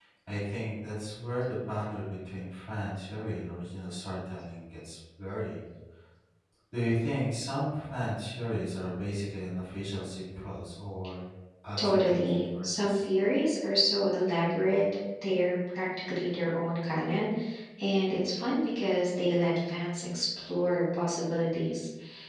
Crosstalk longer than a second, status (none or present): present